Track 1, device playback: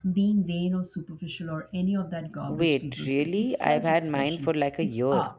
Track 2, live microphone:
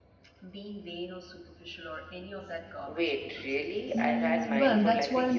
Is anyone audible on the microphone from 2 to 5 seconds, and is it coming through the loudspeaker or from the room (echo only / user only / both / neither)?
both